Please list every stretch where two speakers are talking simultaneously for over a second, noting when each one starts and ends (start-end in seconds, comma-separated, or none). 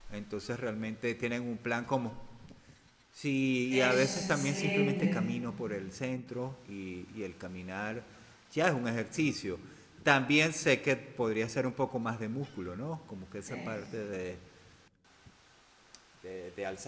3.7-5.1